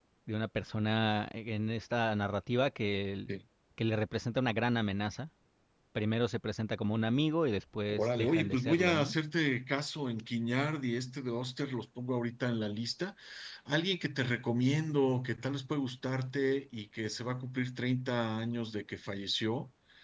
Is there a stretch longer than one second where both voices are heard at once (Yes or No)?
Yes